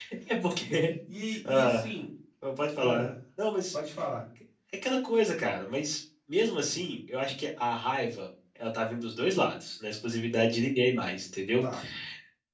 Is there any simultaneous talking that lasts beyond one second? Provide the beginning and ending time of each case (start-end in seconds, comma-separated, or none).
none